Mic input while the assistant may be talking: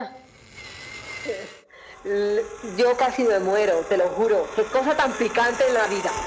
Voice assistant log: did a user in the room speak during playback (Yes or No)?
No